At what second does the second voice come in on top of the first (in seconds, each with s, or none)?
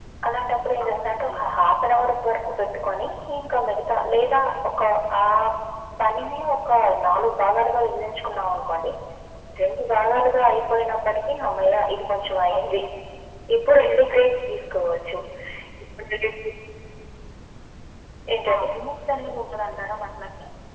0.8 s